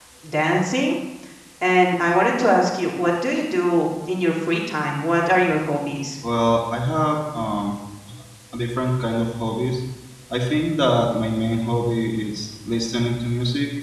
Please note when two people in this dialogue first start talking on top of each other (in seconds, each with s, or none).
none